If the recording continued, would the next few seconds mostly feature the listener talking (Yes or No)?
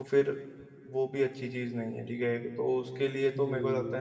Yes